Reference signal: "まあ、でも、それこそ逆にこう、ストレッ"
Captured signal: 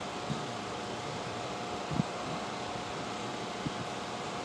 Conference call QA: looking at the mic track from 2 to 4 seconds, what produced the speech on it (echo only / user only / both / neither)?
neither